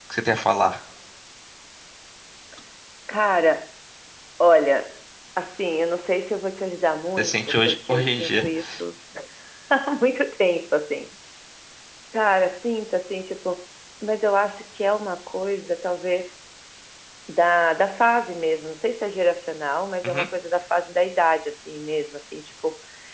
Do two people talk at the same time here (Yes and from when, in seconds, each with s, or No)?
Yes, from 7.2 s